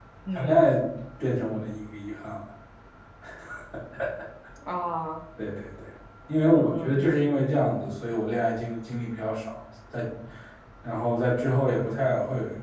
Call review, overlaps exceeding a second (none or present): none